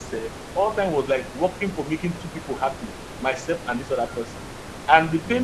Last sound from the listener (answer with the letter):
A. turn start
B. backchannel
B